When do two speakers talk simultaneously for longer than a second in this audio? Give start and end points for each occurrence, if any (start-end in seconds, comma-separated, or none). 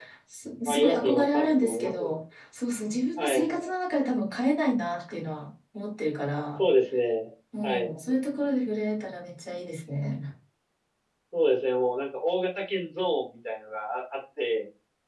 0.7-2.1